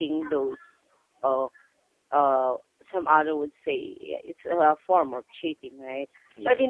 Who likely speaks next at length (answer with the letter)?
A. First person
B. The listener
A